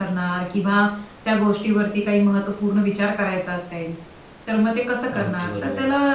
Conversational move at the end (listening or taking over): listening